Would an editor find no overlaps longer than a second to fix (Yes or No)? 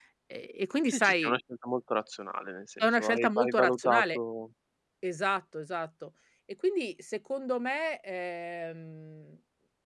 No